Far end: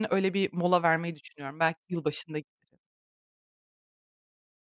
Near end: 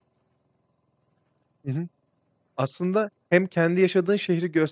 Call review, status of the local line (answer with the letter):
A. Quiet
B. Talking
B